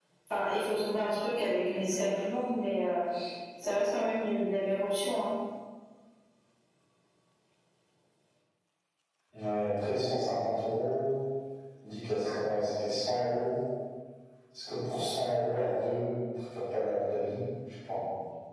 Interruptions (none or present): none